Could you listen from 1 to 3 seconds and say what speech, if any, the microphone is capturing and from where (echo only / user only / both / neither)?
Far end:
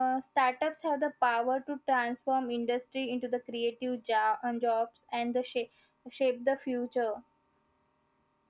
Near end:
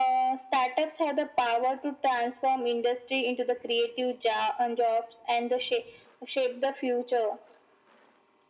echo only